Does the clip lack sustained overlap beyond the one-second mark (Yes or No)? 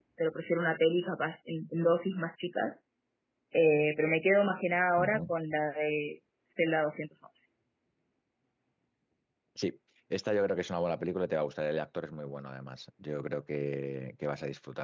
Yes